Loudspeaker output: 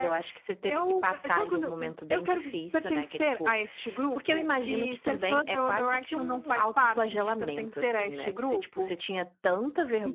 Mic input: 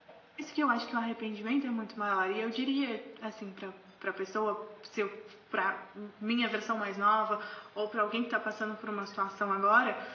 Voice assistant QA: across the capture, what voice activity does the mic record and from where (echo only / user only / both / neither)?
user only